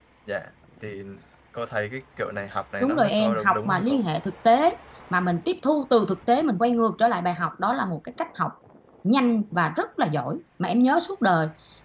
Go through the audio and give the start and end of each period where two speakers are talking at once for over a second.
2.8-4.0

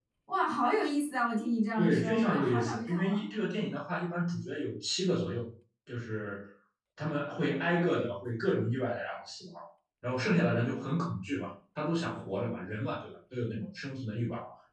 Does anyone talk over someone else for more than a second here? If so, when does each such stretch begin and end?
1.8-3.0

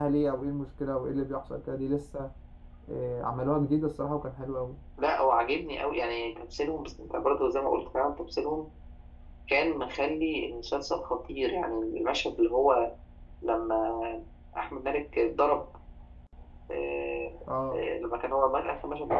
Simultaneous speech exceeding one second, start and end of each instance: none

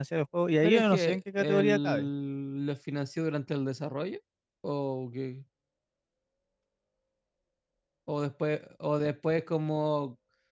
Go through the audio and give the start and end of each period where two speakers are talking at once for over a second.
0.6-2.1

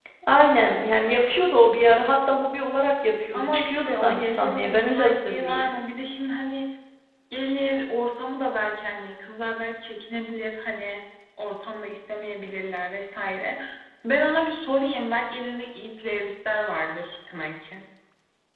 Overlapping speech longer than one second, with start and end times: 3.3-5.7

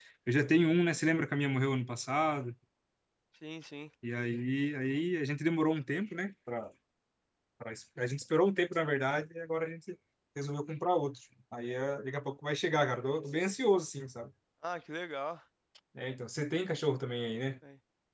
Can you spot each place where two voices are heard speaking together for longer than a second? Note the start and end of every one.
none

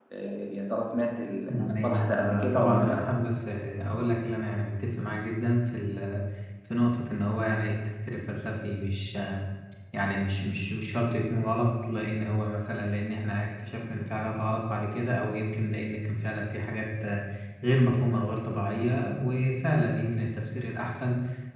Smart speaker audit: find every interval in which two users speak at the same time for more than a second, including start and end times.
1.5-3.1

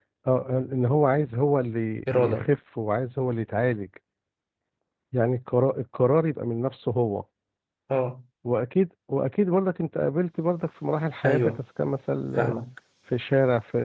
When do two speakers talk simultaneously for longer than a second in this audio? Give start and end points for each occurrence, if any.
none

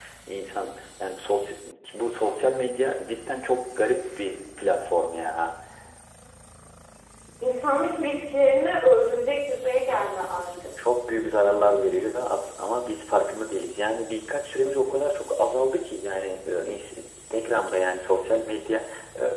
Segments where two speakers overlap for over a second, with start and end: none

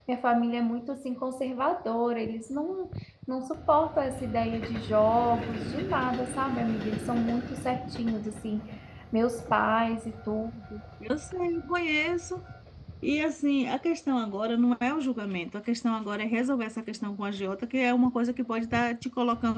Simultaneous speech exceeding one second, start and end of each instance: none

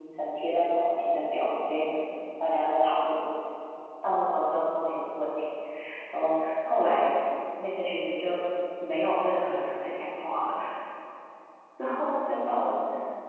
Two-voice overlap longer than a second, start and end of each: none

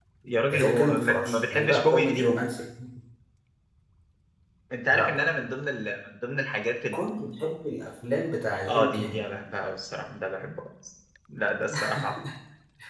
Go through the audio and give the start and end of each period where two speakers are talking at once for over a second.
0.5-2.3

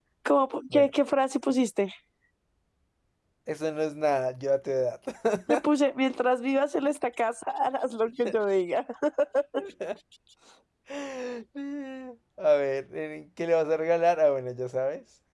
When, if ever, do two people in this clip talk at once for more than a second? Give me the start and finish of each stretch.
none

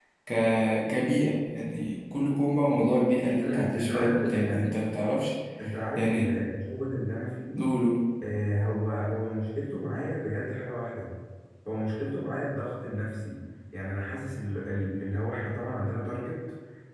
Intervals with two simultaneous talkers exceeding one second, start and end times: 3.4-4.6

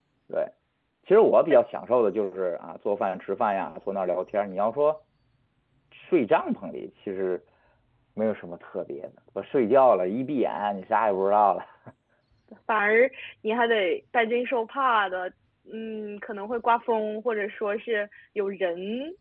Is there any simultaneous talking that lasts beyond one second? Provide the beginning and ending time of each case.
none

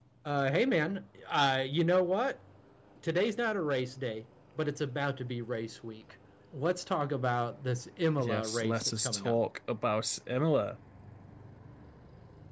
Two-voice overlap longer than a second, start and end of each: 8.2-9.4

